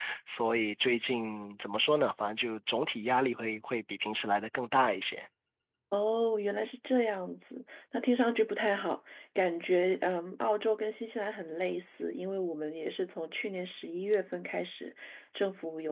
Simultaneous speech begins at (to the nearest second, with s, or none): none